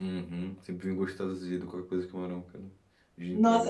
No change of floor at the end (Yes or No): No